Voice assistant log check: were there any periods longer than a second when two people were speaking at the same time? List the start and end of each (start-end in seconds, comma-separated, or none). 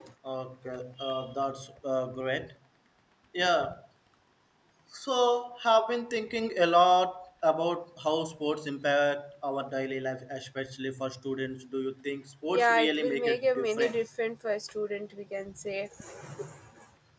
12.5-14.0